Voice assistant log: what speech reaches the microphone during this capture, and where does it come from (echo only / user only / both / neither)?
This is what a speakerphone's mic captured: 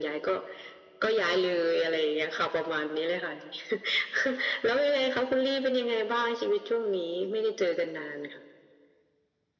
echo only